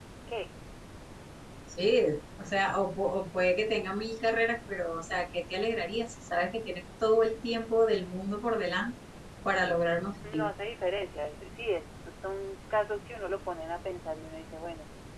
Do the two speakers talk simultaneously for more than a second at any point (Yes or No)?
No